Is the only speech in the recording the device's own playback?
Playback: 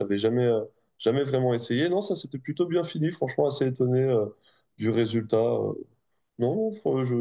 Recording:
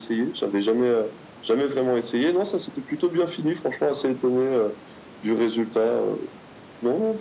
Yes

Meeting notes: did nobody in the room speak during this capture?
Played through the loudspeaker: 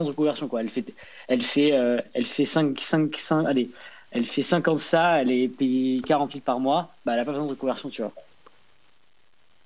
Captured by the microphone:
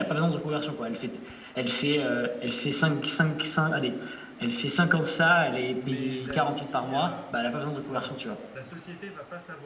No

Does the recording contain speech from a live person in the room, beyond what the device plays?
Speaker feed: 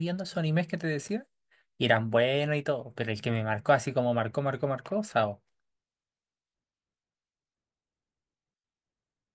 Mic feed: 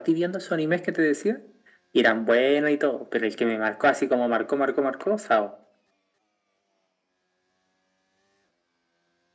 No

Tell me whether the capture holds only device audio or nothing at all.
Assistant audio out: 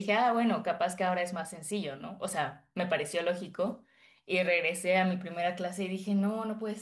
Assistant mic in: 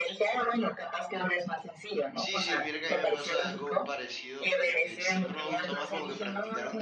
No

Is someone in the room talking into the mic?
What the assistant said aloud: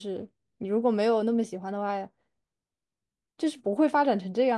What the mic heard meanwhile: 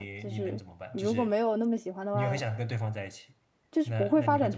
Yes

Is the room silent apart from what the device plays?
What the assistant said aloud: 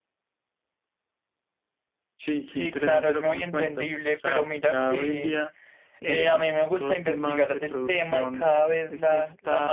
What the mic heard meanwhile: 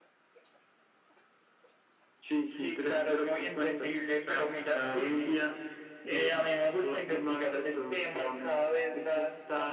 Yes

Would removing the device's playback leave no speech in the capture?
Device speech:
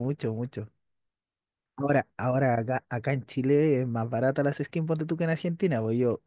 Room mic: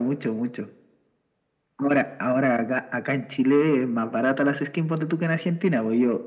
Yes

